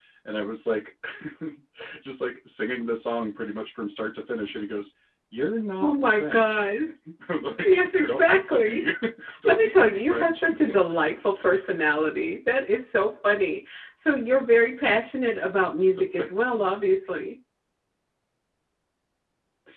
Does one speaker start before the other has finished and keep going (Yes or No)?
Yes